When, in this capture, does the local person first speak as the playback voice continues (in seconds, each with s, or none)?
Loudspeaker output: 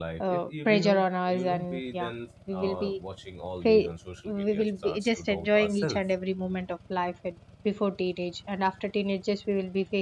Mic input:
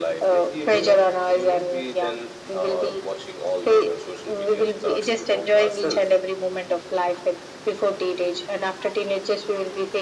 none